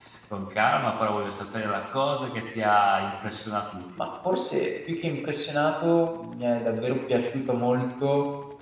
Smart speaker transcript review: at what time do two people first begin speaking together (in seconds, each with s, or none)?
none